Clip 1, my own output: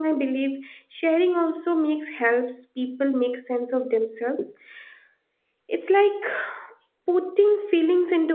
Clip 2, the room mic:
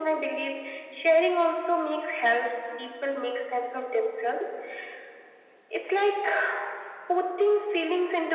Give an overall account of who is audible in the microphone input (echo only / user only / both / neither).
echo only